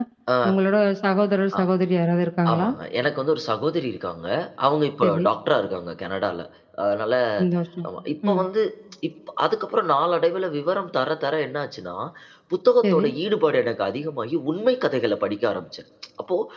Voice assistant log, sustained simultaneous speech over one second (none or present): none